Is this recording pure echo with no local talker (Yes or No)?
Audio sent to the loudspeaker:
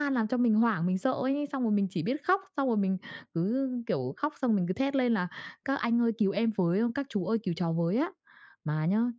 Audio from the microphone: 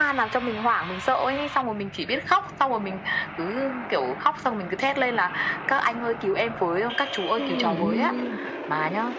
No